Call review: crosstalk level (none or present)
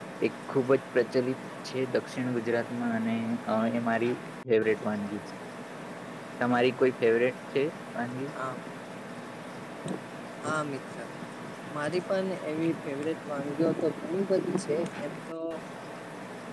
none